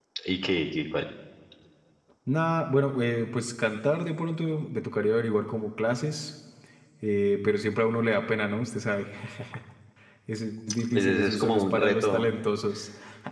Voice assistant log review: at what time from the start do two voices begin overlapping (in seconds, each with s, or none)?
10.9 s